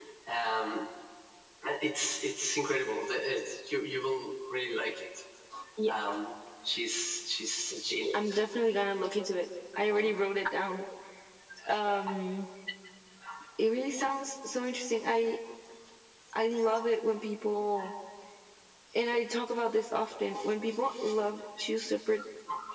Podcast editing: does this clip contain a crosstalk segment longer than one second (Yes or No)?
No